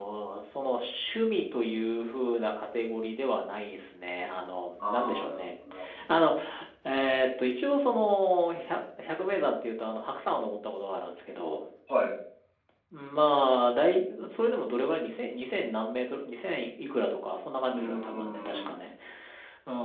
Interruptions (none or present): present